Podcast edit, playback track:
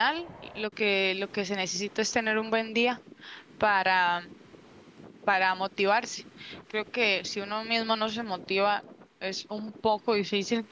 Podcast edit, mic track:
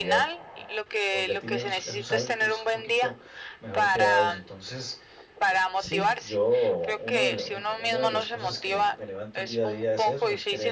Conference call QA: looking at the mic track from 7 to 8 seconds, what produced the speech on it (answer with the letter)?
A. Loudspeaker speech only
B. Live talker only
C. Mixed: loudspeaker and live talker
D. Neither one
C